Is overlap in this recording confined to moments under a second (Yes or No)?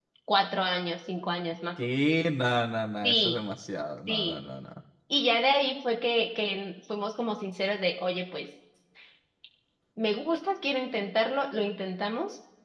Yes